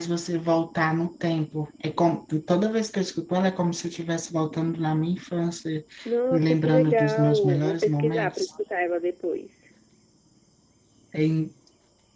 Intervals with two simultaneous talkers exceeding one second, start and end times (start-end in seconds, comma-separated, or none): 6.3-8.5